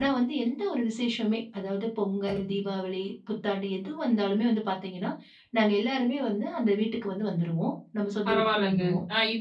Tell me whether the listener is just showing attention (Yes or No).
No